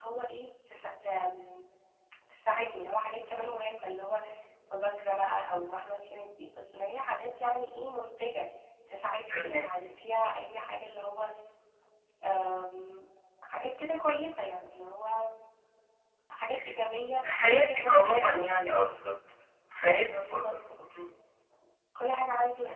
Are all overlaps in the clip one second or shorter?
No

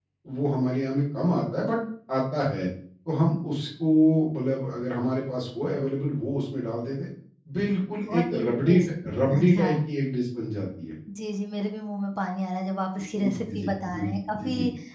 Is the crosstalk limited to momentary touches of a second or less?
No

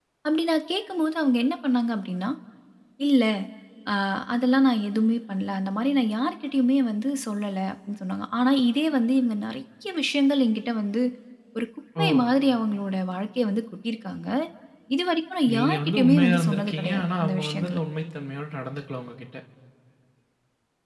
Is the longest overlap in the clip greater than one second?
Yes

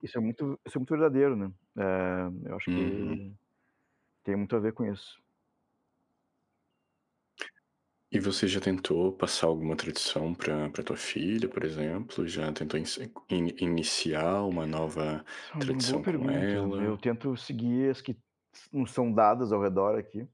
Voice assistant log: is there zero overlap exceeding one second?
No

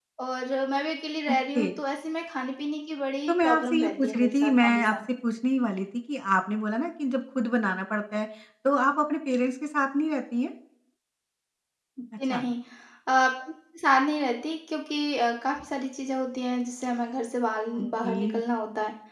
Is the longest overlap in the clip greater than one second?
Yes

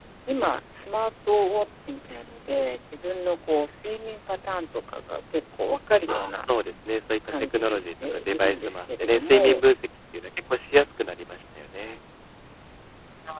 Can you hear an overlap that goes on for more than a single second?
Yes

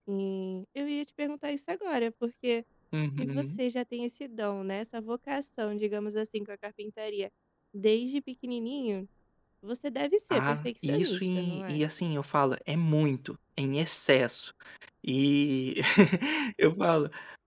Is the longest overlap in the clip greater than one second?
Yes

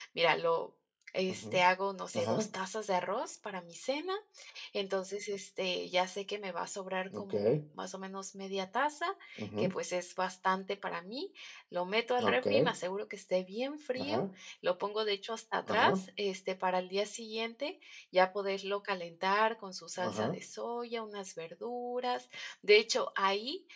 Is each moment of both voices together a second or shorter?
Yes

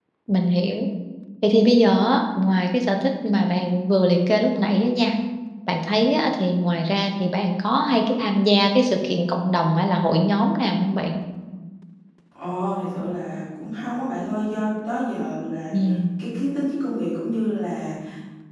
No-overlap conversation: Yes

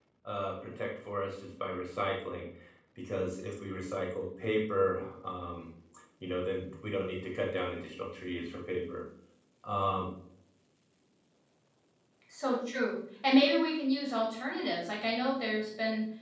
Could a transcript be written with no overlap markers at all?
Yes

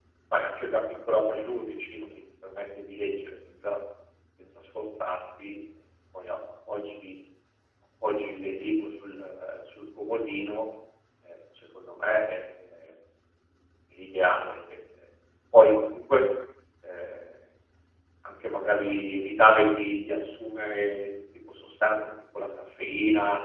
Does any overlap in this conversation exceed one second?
No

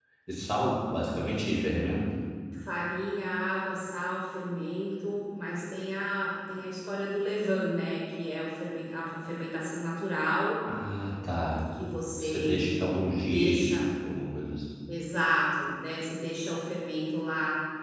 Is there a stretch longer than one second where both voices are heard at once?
No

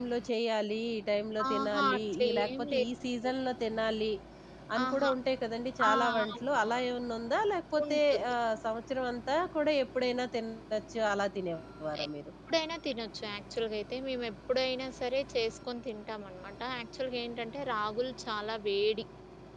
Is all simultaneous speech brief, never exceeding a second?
No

